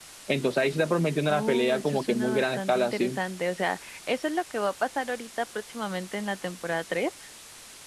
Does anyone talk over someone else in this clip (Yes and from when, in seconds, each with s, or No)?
Yes, from 1.3 s